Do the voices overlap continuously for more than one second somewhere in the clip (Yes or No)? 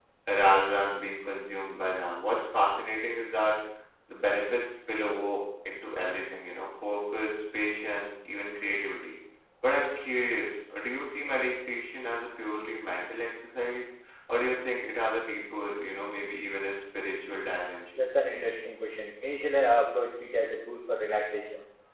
No